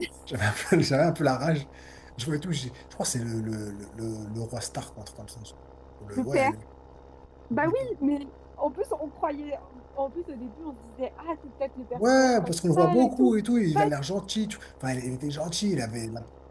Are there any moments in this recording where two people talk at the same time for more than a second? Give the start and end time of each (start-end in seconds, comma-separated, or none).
11.9-13.9